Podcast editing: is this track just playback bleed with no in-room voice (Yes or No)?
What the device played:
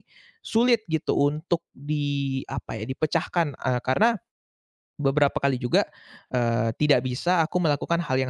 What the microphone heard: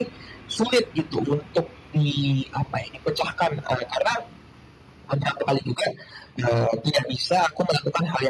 Yes